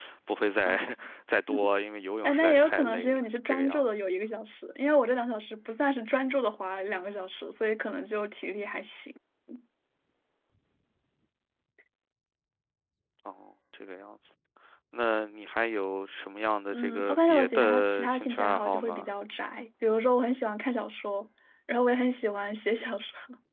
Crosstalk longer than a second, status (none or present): present